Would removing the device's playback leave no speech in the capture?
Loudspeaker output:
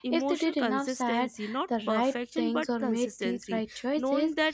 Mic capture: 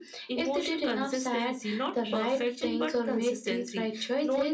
Yes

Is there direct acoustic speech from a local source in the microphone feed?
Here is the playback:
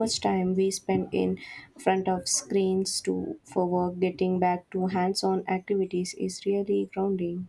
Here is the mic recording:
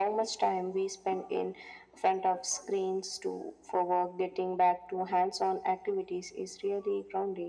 No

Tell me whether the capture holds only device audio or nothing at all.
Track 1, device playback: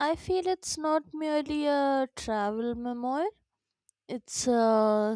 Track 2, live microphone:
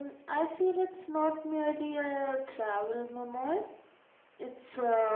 Yes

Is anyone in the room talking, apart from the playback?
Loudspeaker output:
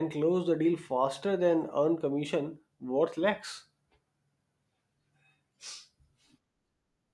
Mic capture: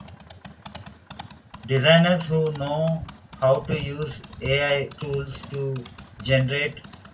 Yes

